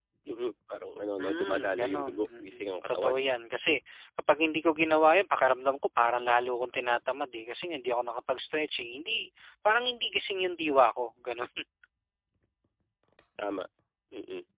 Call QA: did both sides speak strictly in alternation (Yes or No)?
No